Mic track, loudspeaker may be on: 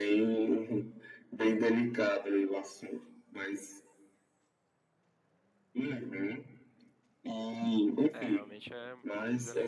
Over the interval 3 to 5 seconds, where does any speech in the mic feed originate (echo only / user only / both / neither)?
echo only